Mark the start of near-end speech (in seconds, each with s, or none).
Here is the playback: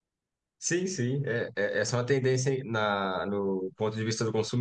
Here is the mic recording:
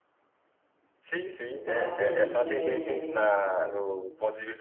1.4 s